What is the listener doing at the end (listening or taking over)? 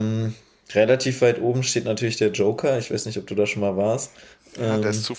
taking over